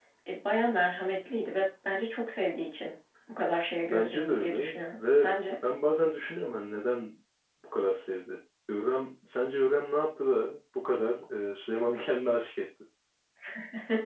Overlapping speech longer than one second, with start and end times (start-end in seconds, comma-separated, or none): 3.8-5.6